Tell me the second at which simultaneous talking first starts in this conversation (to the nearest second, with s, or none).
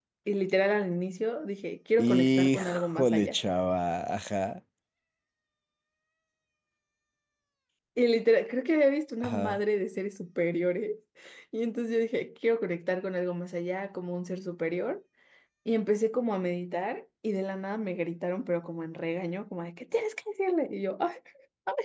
2 s